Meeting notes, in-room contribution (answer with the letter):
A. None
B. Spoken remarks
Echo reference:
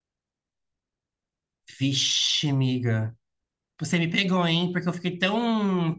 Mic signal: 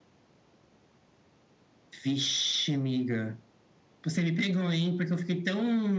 A